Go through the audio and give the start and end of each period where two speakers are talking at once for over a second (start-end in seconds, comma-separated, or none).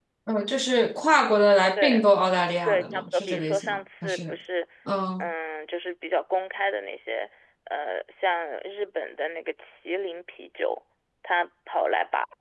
2.7-4.3